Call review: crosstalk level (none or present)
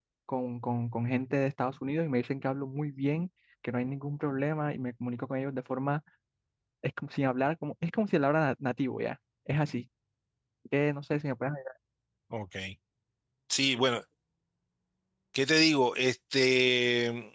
none